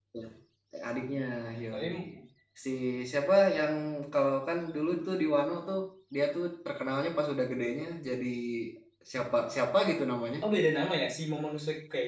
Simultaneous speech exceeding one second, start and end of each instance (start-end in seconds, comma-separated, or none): none